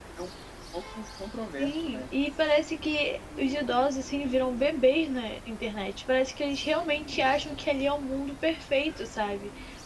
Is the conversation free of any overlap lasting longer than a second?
Yes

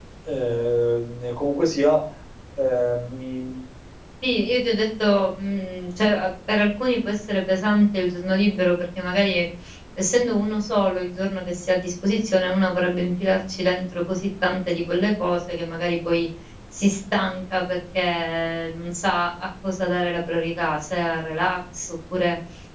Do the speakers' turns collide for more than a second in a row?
No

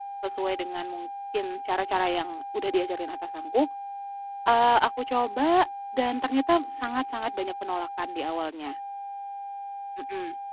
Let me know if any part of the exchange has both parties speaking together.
No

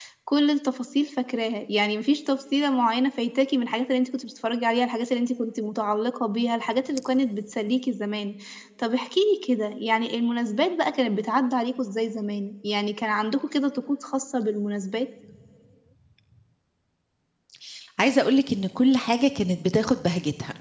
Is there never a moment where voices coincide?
Yes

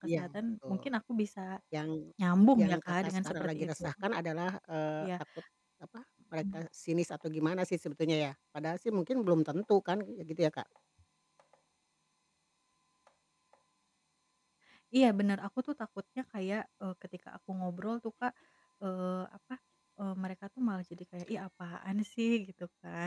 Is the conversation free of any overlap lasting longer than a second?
No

